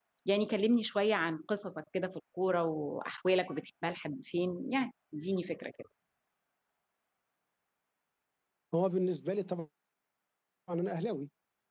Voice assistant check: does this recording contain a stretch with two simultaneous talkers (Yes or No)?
No